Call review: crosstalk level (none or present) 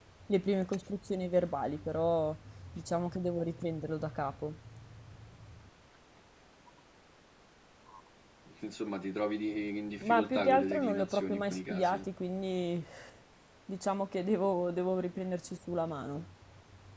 present